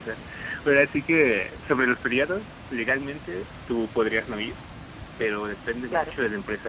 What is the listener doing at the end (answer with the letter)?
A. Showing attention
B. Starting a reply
A